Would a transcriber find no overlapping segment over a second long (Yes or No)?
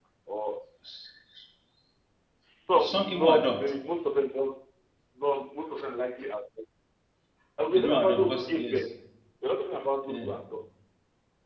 No